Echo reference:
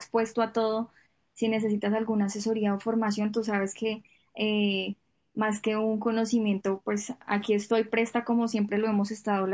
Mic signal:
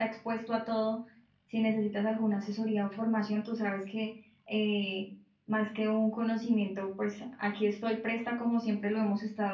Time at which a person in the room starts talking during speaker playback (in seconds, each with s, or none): none